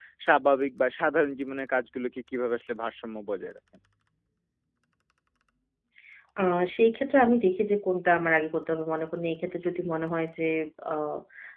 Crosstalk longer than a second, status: none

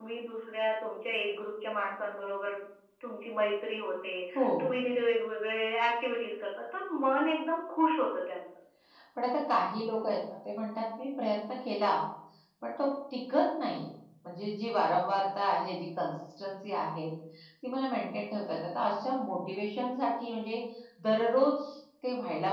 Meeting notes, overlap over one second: none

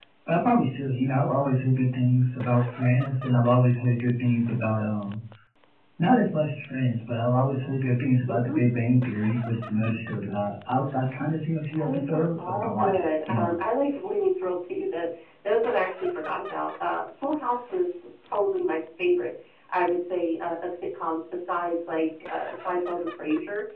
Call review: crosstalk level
present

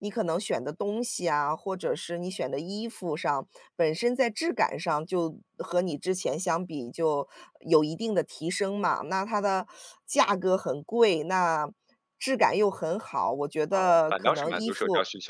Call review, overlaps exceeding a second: present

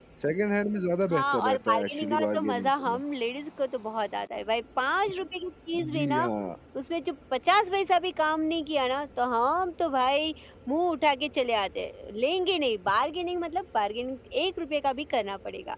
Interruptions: present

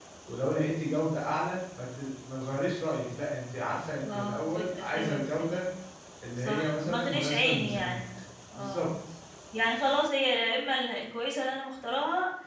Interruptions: present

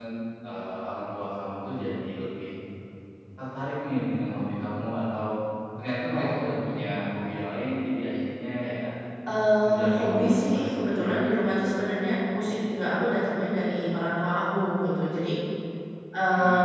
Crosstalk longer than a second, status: present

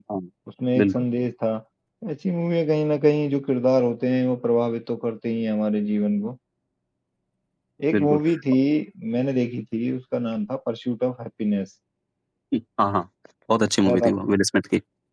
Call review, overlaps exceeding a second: none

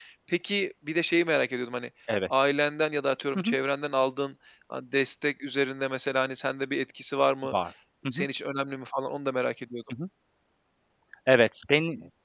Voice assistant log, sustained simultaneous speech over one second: none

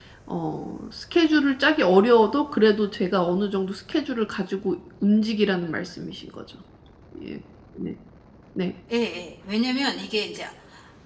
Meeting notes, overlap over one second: none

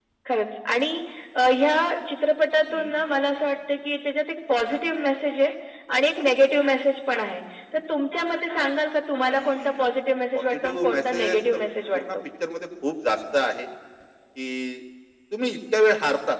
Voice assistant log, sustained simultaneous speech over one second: present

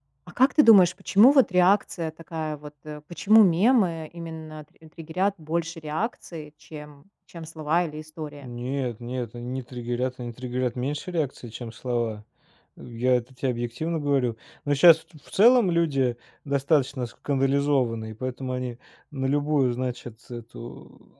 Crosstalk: none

